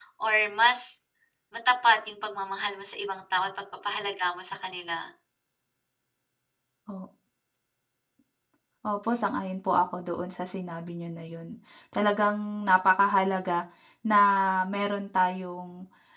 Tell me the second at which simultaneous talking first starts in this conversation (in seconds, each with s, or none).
none